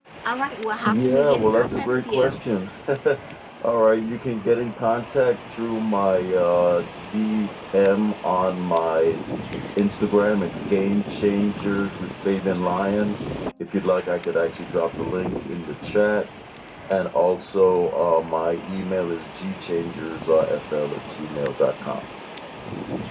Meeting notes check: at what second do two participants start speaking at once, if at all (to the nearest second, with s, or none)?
1 s